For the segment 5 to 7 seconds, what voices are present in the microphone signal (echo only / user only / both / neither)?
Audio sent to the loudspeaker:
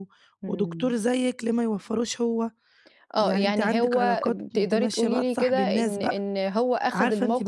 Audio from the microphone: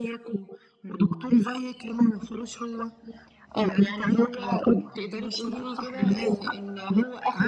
echo only